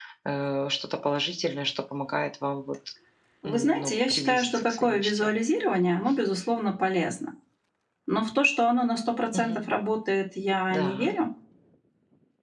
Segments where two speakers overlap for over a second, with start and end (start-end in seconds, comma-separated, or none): 3.4-5.3